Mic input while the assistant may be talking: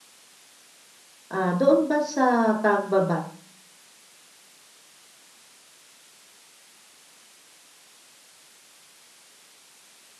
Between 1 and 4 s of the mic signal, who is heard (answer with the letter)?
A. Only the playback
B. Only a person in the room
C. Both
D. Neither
B